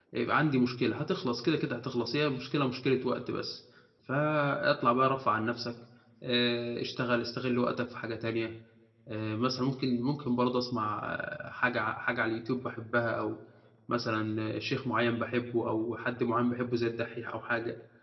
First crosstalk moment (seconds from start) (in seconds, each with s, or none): none